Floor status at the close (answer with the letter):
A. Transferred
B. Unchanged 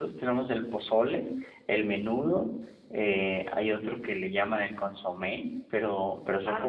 A